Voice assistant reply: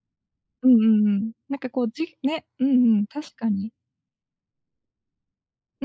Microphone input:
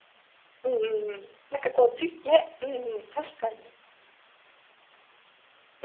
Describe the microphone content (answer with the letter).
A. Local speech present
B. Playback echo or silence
B